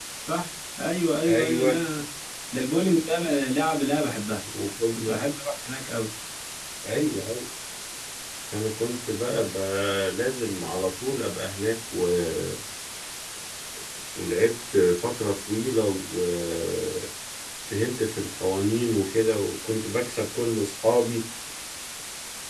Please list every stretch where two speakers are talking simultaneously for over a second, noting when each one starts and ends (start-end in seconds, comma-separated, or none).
none